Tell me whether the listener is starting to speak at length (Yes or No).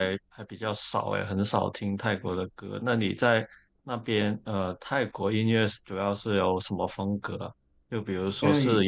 No